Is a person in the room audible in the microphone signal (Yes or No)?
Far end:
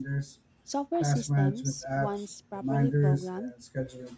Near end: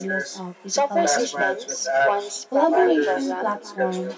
Yes